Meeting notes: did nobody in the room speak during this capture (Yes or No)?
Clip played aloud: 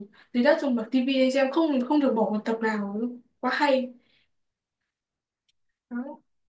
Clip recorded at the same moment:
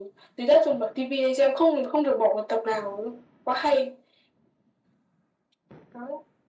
Yes